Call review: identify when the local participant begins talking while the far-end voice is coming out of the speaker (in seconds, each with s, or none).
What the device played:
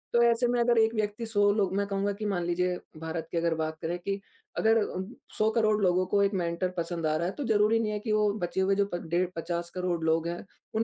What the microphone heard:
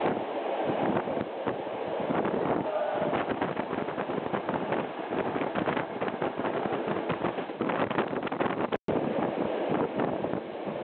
none